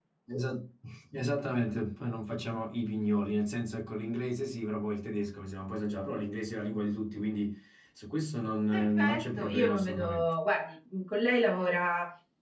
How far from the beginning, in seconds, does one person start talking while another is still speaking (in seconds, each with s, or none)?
8.7 s